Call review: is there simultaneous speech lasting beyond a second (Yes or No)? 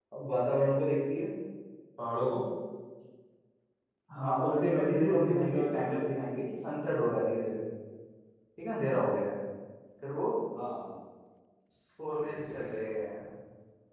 Yes